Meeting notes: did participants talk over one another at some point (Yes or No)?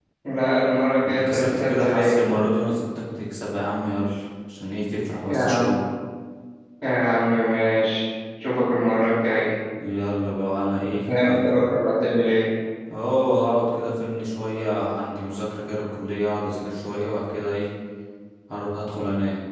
Yes